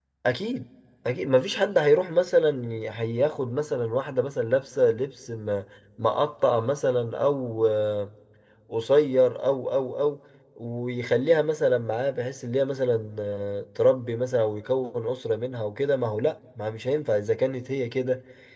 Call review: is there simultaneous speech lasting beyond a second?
No

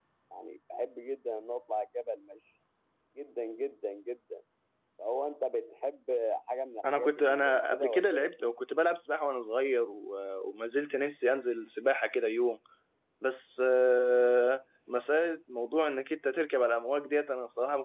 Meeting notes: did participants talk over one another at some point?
Yes, from 6.8 s

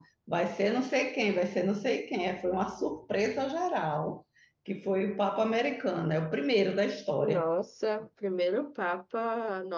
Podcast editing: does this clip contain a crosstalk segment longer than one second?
No

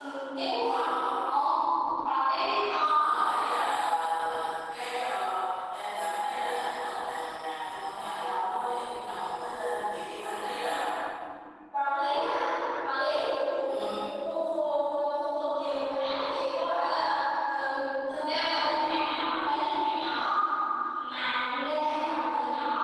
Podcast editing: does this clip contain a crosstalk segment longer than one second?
No

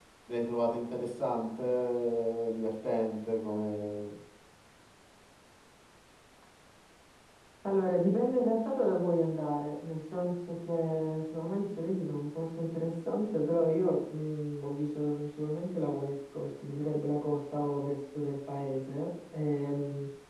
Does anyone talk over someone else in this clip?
No

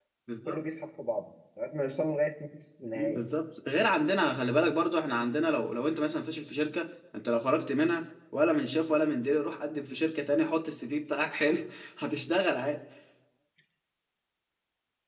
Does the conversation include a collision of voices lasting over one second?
No

